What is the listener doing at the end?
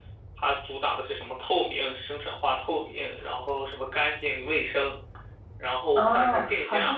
taking over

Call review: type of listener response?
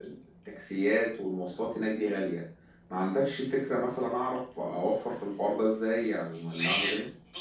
taking over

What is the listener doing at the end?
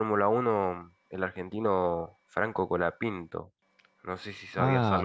taking over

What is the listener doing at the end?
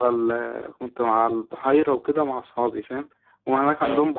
listening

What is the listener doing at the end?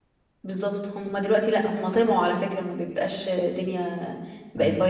listening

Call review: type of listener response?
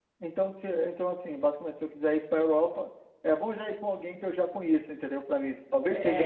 taking over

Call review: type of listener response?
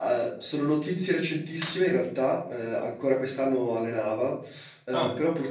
listening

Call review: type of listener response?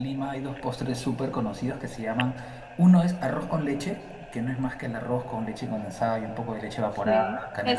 taking over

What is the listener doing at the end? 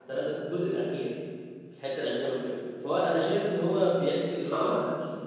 listening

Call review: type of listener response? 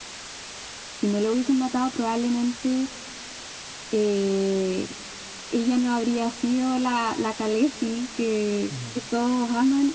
listening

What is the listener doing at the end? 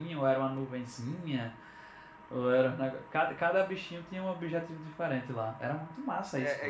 taking over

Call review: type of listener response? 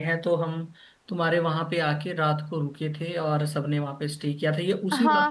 taking over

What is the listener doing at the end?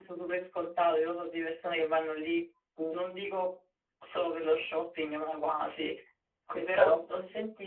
listening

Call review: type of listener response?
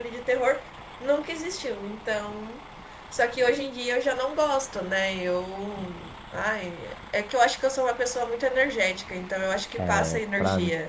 taking over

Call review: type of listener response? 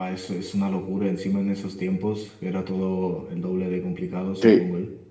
taking over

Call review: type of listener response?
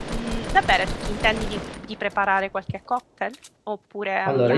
taking over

